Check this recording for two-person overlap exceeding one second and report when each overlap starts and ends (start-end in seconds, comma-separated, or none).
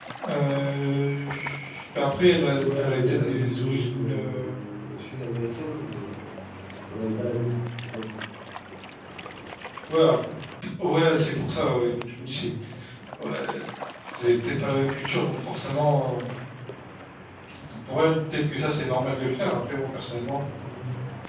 2.6-4.5